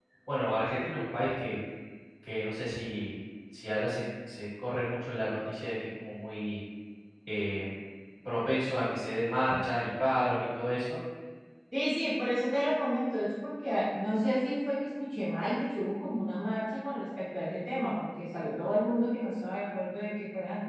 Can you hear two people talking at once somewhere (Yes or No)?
No